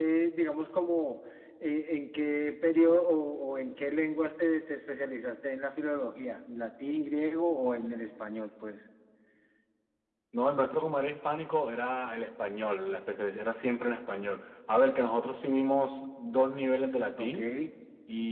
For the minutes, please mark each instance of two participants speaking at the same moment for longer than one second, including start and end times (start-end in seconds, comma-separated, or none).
none